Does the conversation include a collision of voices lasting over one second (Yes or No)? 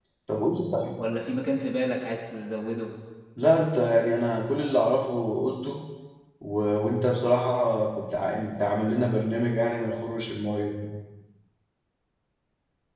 No